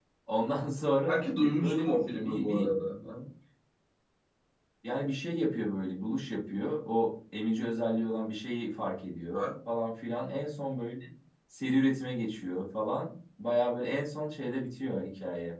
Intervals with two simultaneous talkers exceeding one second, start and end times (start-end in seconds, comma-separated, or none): 1.1-2.7